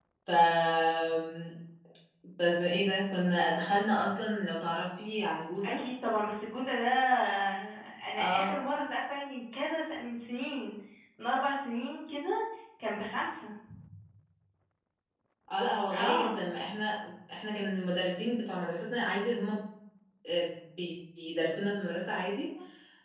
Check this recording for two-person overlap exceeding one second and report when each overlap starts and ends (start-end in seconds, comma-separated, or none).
none